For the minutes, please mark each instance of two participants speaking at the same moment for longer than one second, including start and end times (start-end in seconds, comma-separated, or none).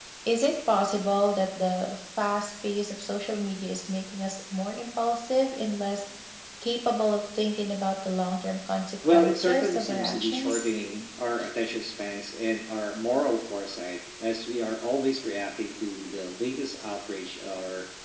9.1-10.6